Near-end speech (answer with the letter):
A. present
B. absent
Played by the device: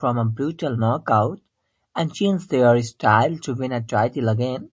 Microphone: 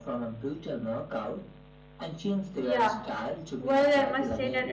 A